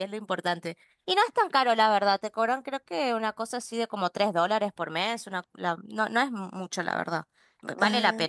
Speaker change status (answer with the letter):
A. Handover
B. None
A